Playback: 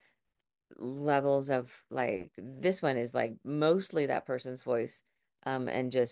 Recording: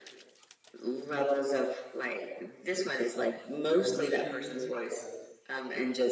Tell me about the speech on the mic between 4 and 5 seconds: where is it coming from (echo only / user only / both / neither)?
both